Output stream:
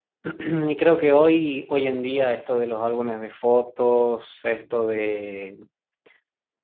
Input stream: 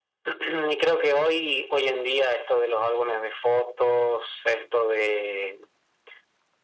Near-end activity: none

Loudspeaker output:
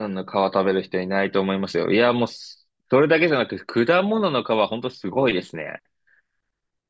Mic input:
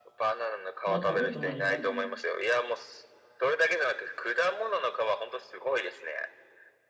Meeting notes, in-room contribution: present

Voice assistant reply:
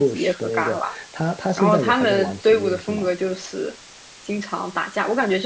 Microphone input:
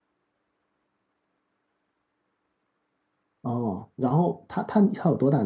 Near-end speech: present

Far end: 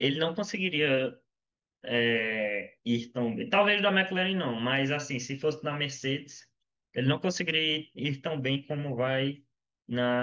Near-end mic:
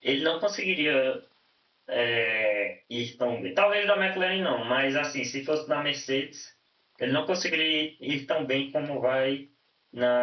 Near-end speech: none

